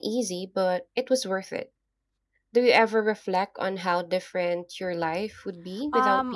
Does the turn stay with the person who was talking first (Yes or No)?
No